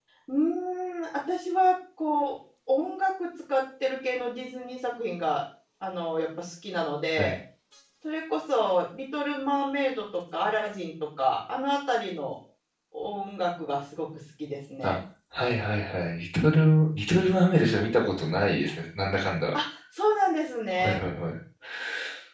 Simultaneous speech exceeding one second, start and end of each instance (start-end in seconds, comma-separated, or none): none